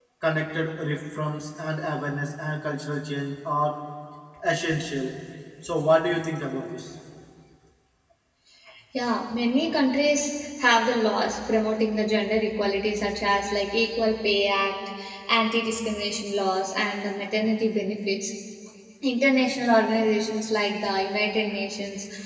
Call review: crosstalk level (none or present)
none